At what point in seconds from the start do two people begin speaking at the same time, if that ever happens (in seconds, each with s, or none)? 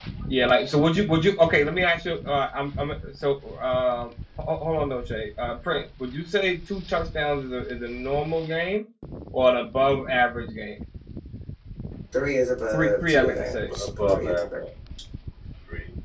12.7 s